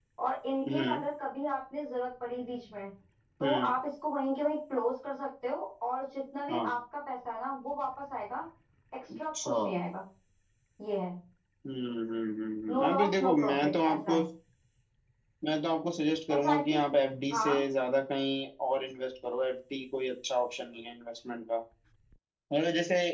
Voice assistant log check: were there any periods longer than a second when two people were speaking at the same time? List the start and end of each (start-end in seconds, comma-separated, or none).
12.7-14.2